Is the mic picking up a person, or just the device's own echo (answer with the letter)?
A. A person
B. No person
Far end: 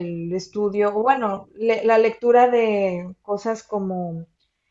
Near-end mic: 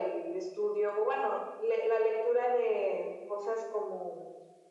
B